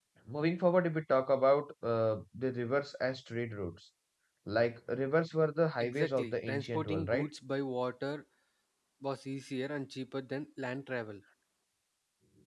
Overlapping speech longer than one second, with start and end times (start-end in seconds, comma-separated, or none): 5.8-7.2